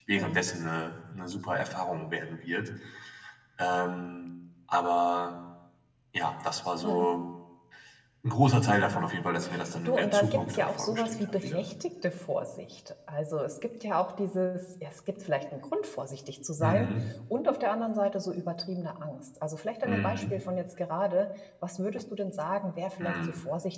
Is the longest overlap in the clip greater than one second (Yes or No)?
Yes